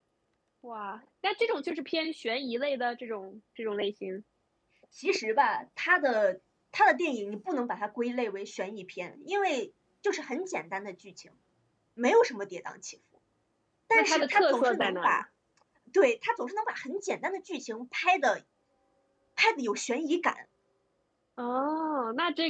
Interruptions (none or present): present